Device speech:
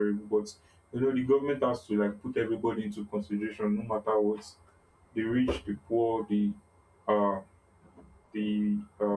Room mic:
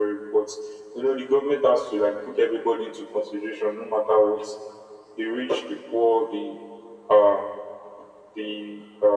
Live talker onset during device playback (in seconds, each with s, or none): none